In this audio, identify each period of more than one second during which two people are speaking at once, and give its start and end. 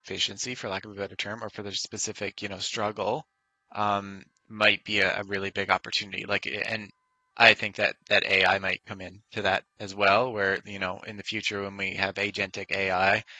none

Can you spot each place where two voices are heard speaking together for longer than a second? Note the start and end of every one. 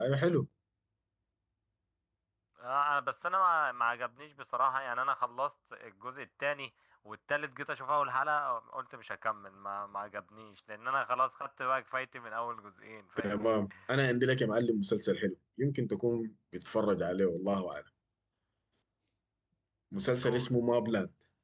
none

